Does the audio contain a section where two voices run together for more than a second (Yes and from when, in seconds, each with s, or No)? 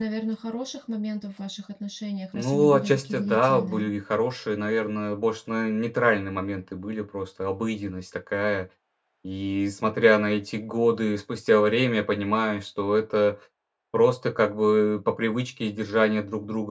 Yes, from 2.3 s